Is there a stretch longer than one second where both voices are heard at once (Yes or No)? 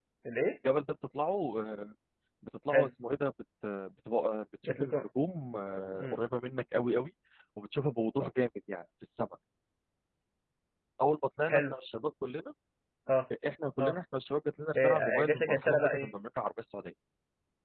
Yes